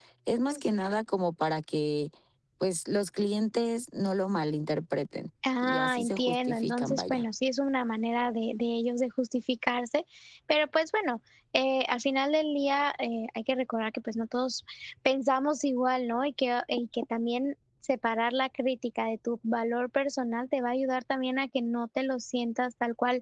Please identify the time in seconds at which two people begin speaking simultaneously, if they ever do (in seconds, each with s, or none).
5.4 s